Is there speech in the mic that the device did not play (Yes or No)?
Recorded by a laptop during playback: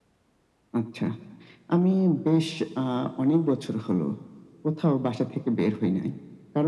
No